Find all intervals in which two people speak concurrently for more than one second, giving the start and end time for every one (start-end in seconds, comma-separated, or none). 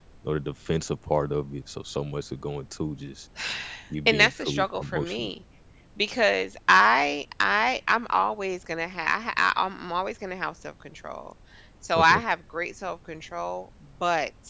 4.1-5.3